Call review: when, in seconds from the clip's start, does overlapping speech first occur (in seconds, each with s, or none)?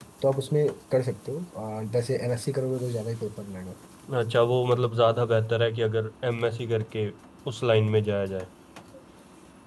none